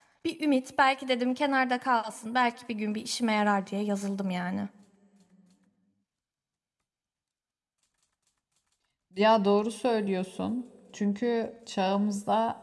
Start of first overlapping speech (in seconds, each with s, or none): none